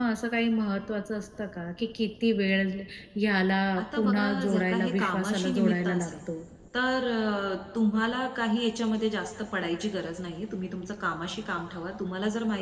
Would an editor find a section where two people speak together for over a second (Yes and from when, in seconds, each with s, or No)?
Yes, from 3.8 s